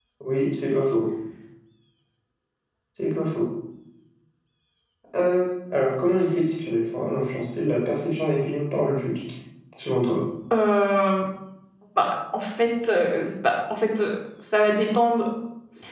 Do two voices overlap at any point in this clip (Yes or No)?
No